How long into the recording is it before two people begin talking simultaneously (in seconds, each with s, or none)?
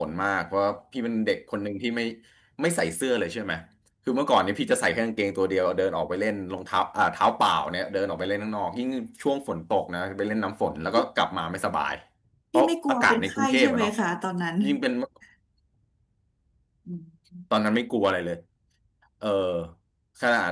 12.6 s